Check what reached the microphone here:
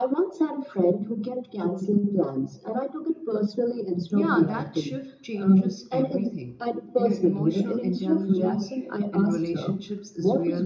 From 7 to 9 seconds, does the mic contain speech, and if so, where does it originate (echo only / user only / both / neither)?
both